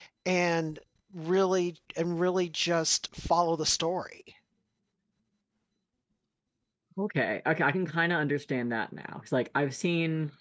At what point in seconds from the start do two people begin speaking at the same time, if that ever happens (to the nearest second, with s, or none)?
none